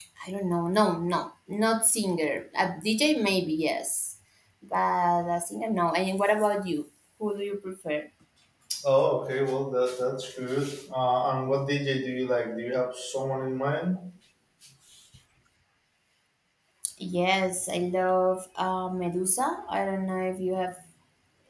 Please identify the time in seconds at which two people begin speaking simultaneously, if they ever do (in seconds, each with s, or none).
none